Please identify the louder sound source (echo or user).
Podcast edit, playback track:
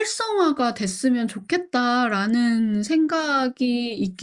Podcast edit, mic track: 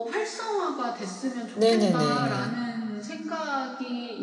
user